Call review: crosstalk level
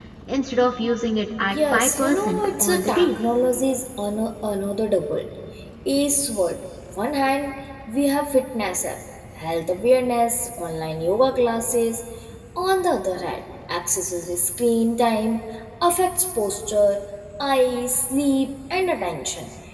present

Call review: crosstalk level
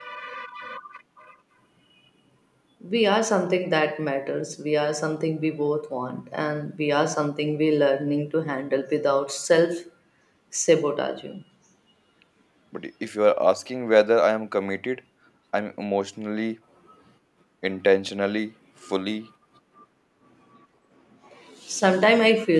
none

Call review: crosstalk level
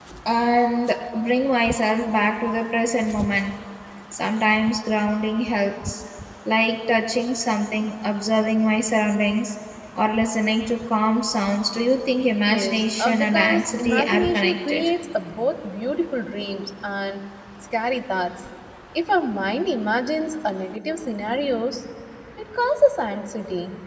present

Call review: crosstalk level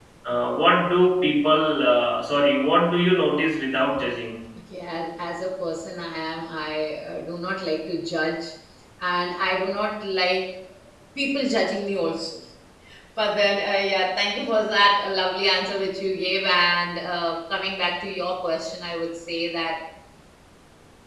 none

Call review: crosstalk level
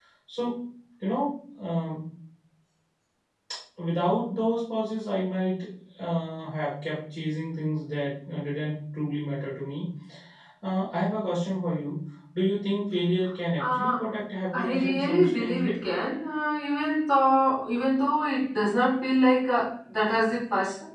present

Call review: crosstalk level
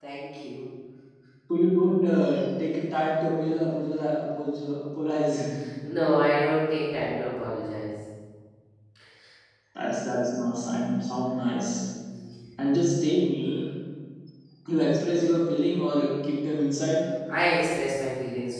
none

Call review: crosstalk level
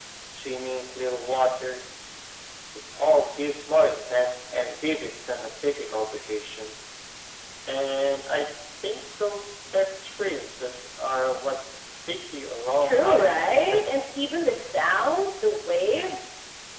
present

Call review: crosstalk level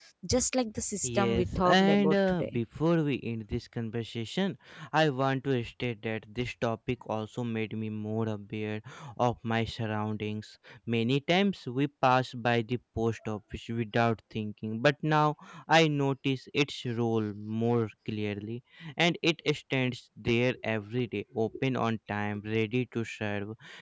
present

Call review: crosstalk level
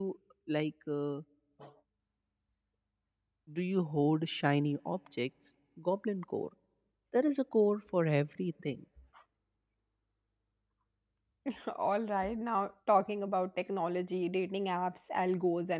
none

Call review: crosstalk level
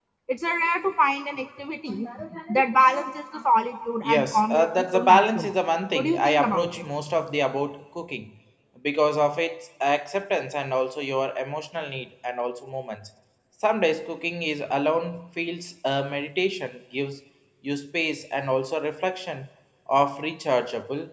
present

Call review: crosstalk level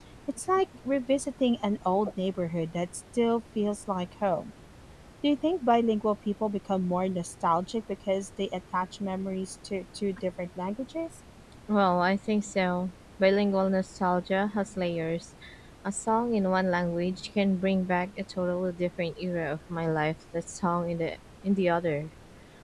none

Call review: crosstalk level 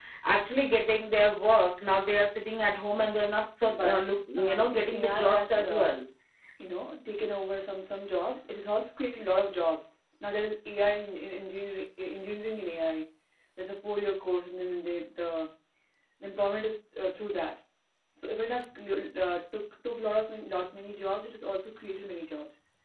present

